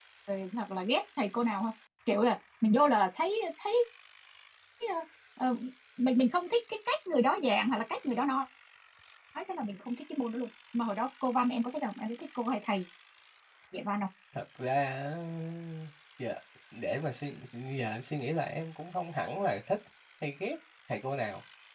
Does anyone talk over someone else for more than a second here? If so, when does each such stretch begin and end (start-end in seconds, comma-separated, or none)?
none